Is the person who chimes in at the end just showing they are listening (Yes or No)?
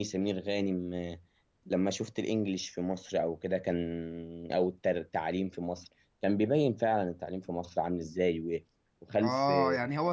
No